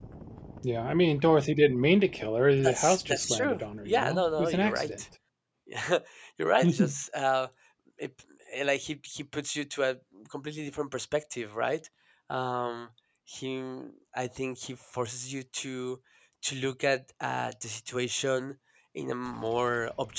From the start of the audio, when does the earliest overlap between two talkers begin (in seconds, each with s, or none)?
2.6 s